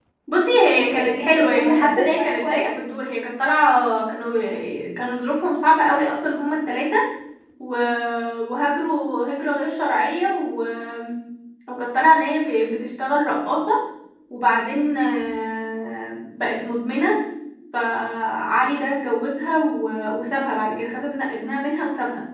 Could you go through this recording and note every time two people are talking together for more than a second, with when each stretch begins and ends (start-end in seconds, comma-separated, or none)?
0.8-2.7